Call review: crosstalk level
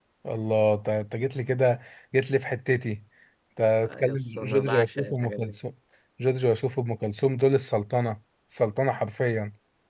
present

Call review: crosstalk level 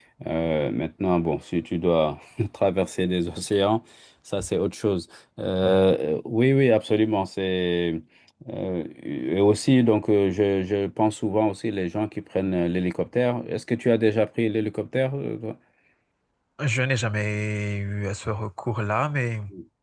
none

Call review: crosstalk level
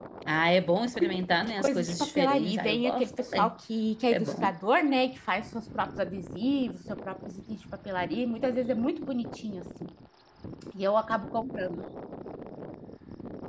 present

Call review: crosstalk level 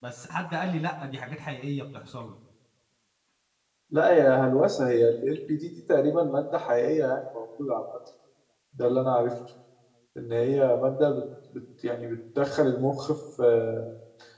none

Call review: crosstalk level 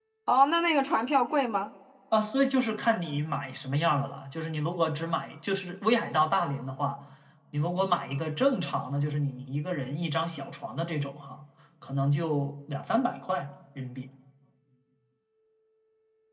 none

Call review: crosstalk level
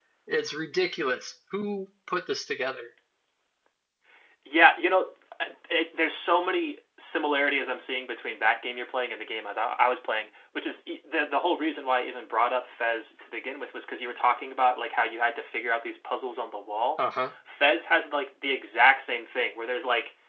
none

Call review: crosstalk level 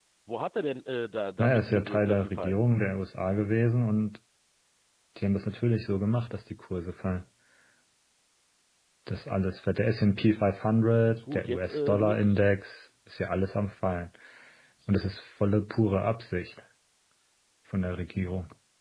present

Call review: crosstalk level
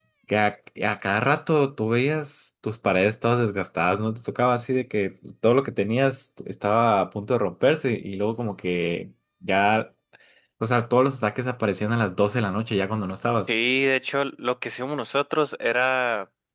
none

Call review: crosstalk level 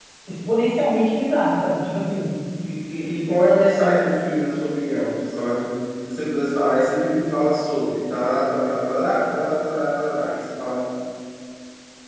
none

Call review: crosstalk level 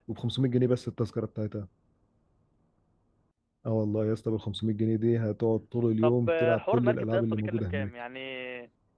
present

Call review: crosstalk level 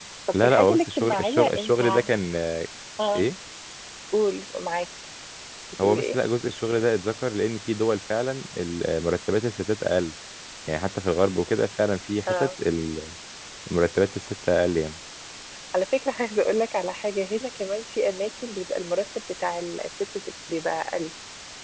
present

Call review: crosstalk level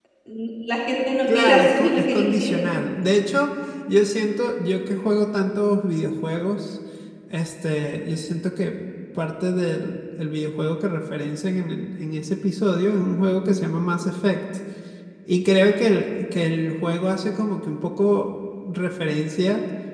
present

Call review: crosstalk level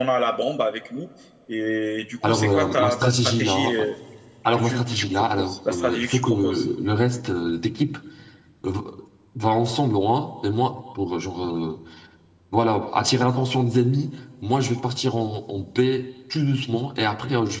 present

